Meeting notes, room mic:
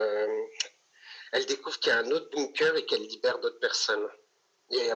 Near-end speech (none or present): none